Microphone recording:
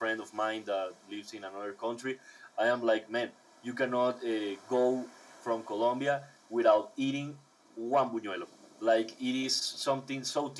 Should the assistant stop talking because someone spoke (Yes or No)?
No